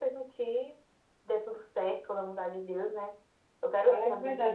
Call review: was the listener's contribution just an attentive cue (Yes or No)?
No